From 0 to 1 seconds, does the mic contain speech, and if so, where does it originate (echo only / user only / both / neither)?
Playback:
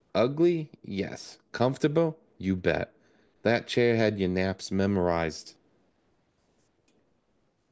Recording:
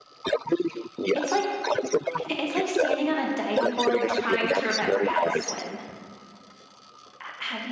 echo only